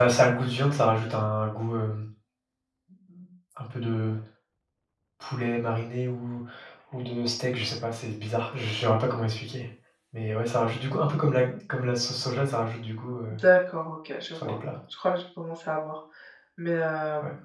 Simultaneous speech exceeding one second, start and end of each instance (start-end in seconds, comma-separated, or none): none